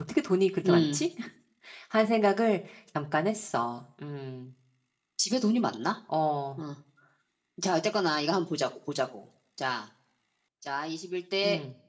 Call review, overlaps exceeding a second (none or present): none